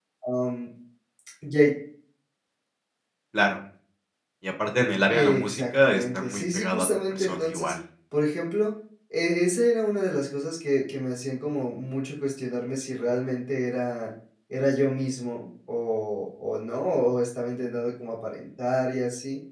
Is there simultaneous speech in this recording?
Yes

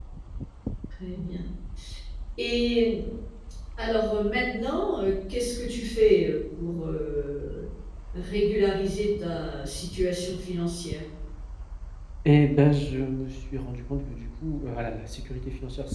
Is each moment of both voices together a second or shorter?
Yes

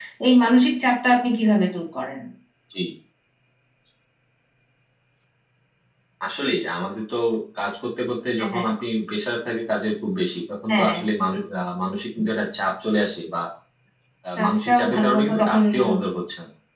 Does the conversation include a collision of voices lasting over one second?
Yes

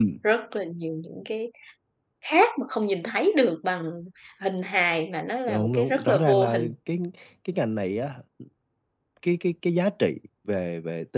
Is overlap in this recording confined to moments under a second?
No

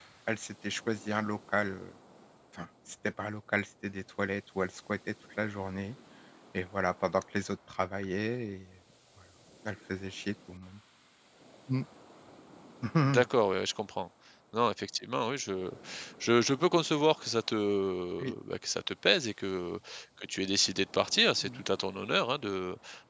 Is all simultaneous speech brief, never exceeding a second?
Yes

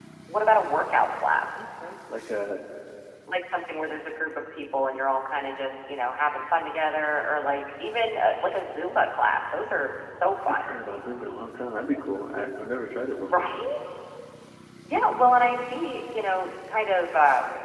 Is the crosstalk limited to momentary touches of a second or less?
Yes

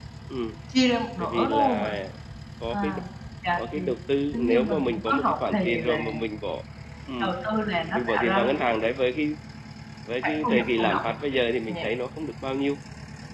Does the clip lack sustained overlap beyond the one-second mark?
No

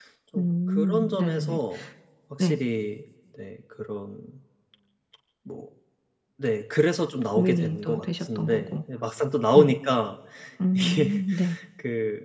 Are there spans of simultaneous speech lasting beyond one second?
Yes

